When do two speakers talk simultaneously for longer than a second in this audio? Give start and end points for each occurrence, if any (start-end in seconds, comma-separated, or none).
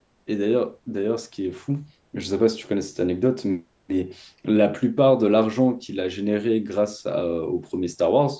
none